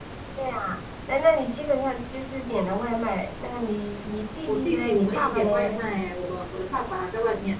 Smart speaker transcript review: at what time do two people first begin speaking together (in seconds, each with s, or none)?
4.5 s